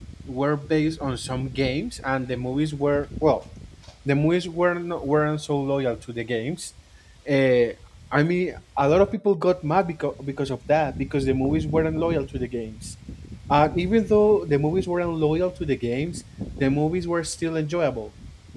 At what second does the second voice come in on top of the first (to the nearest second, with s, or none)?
none